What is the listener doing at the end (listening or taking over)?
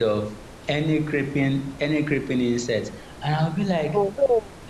listening